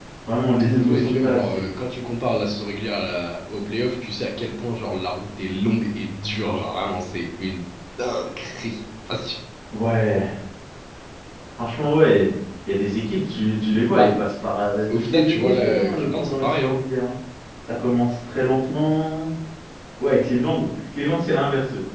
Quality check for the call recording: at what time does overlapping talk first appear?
0.6 s

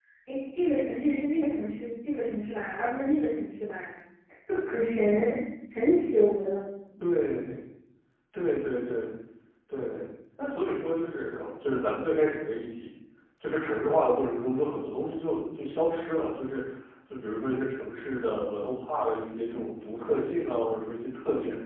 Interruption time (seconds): none

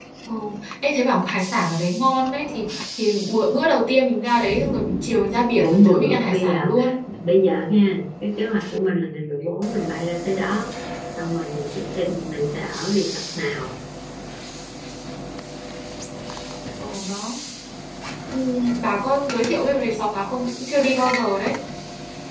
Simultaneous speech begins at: 5.6 s

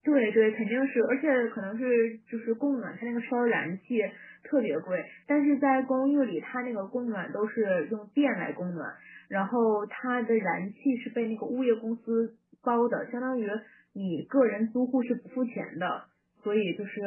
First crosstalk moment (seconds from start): none

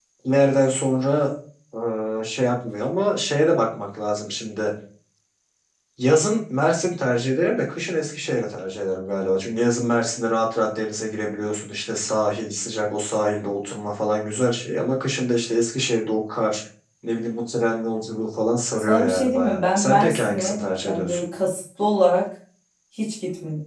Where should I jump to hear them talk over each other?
18.8 s

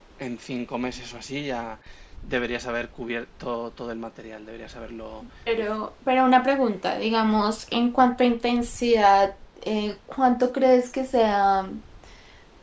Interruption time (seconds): none

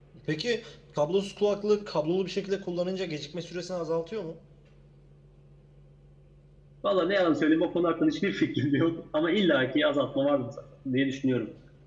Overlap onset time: none

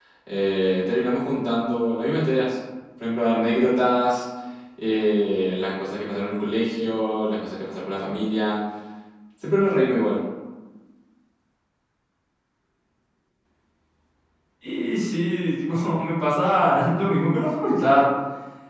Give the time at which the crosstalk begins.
none

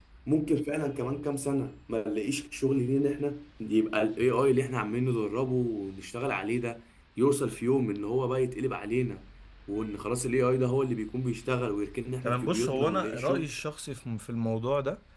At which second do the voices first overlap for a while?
12.2 s

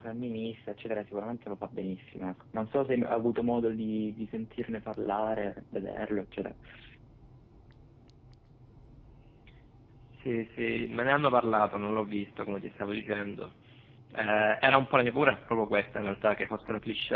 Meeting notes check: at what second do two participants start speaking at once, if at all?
none

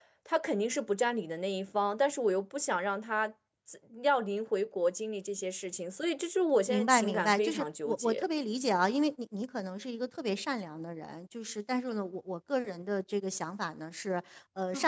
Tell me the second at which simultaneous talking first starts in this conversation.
6.7 s

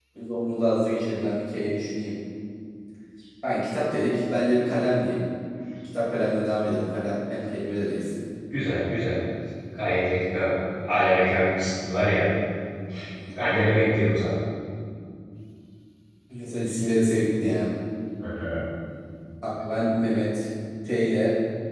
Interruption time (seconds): none

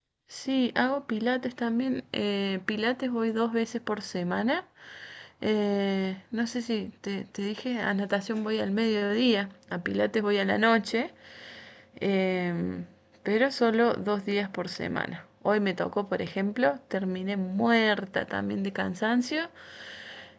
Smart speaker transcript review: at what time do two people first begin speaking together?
none

